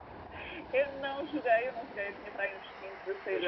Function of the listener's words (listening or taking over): taking over